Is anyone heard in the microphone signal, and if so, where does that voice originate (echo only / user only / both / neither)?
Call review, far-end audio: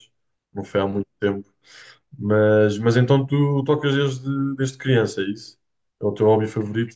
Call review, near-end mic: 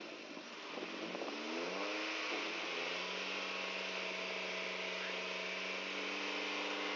neither